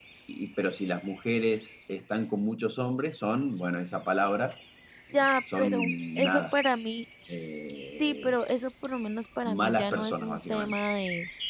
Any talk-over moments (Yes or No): Yes